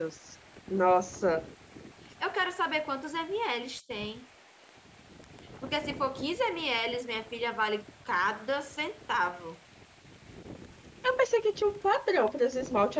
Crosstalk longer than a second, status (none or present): none